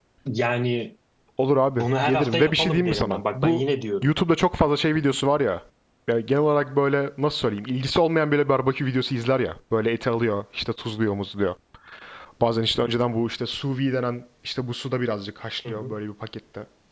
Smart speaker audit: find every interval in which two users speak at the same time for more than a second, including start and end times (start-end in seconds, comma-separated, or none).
1.8-3.6